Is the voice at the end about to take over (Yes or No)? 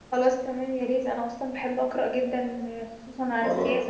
Yes